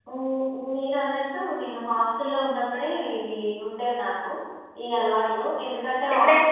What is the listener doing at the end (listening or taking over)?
listening